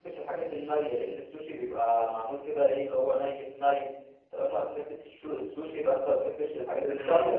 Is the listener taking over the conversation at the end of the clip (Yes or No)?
Yes